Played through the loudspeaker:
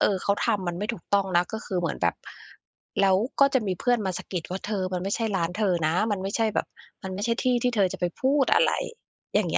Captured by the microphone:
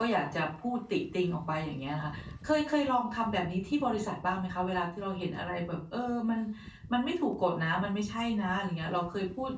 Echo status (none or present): none